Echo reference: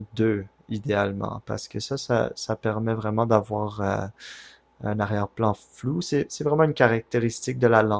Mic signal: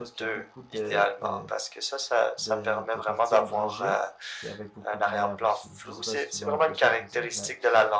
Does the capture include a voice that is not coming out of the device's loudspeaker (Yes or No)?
Yes